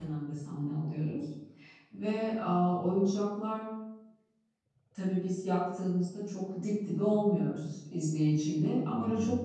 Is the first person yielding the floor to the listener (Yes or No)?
No